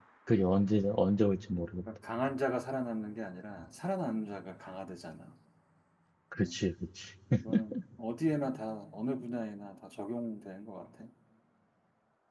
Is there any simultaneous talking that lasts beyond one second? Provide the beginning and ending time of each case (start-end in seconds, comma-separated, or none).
none